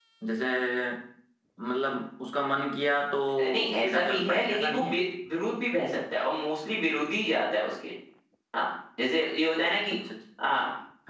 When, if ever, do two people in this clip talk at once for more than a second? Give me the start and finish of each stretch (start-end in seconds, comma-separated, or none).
3.4-5.0